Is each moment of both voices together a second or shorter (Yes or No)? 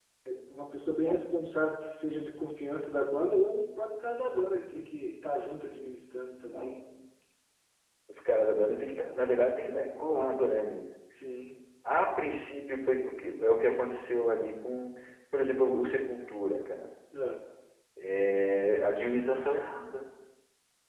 Yes